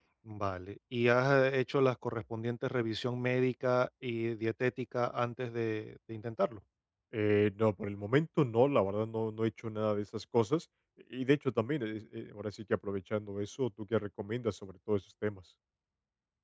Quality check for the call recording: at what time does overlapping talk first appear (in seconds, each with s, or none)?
none